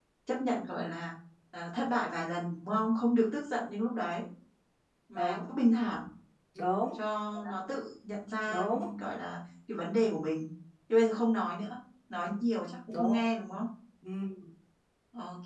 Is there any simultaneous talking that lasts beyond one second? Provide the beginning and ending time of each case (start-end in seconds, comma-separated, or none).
none